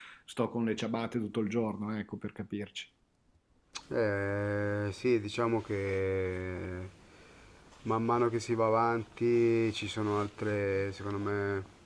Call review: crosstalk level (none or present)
none